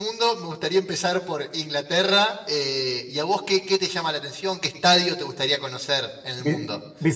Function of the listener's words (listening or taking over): taking over